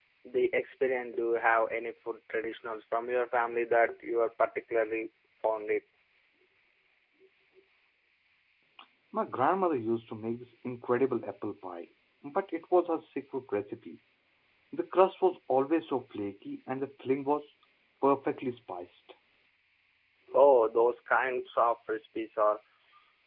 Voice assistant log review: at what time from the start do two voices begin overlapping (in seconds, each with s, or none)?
none